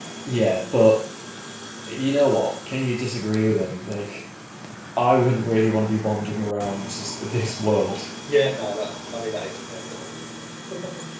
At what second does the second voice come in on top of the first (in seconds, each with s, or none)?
none